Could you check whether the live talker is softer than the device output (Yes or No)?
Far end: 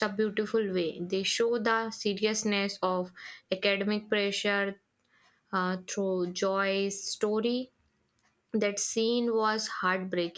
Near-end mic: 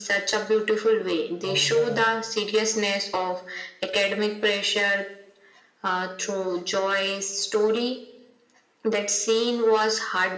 Yes